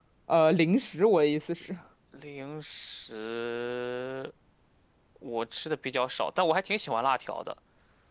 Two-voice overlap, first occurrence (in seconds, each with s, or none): none